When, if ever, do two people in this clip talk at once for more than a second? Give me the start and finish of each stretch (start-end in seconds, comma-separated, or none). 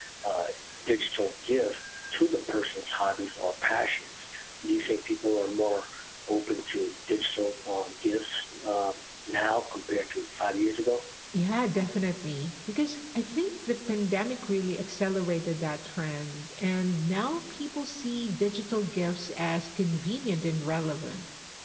none